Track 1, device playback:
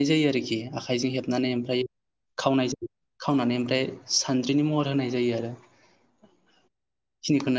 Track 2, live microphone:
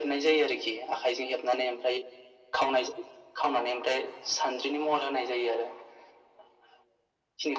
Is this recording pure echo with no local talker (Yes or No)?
Yes